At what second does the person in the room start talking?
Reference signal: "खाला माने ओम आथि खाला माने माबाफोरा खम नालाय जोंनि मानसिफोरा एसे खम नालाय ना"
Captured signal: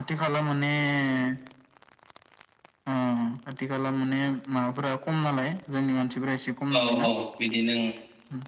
6.8 s

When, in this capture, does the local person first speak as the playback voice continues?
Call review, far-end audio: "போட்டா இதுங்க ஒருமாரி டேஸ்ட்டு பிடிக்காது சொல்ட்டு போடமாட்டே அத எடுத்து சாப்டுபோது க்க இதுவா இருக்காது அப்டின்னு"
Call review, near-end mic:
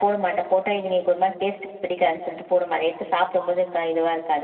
none

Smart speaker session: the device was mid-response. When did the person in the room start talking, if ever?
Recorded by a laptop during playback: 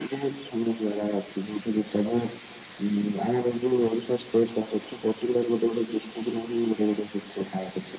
none

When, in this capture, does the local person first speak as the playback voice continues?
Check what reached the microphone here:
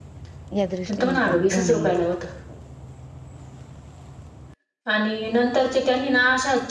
0.6 s

